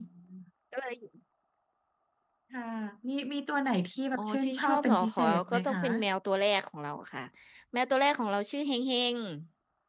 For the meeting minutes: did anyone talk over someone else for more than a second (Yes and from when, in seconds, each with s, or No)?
Yes, from 4.2 s